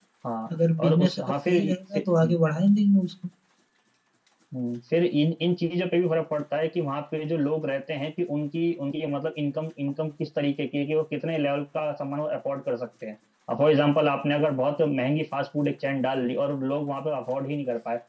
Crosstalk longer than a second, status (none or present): present